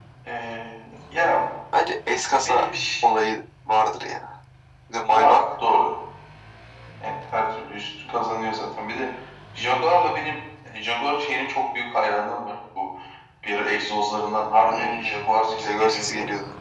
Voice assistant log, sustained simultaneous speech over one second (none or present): present